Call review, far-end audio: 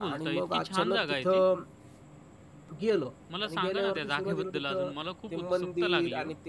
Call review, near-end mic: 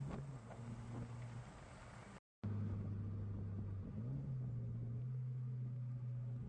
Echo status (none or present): none